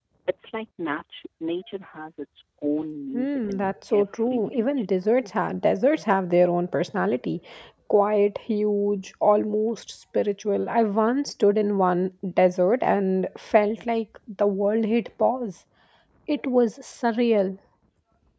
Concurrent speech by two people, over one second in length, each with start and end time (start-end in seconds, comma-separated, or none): 3.1-4.9